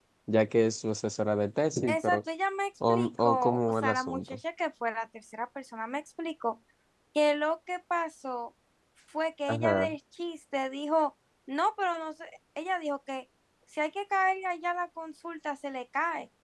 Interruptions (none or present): present